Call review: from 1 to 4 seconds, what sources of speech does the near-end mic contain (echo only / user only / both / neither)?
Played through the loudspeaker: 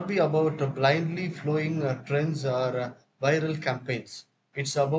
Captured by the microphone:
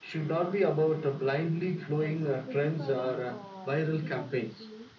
both